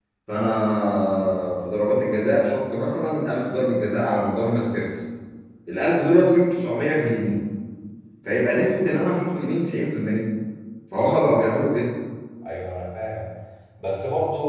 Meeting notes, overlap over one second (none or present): none